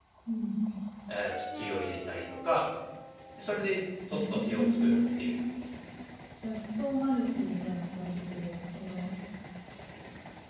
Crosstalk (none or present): present